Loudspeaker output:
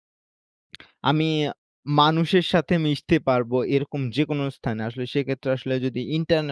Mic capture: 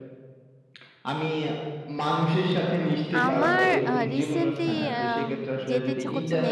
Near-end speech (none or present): present